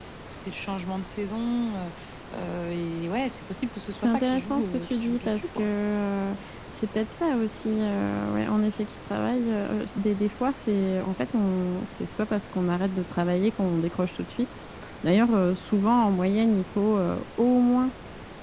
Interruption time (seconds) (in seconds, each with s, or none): 4.0 s